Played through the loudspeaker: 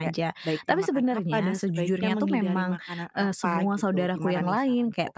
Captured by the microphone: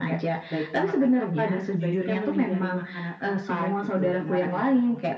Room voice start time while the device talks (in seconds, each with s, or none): none